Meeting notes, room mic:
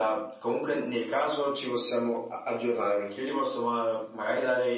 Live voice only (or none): none